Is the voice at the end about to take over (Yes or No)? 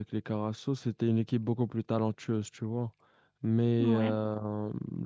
No